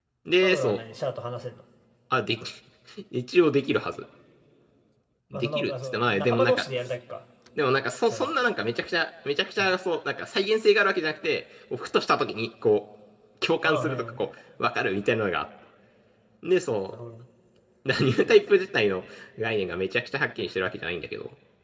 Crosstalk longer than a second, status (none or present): present